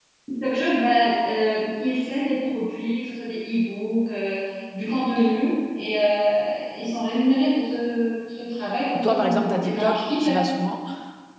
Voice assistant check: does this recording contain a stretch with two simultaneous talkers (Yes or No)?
Yes